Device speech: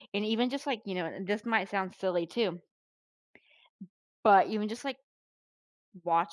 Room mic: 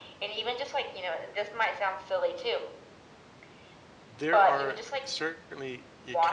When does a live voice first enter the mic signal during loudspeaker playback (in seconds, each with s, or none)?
4.2 s